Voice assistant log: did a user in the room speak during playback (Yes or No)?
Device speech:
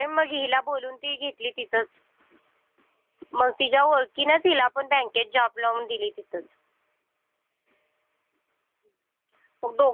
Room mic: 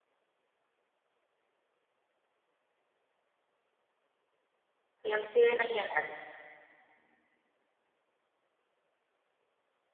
Yes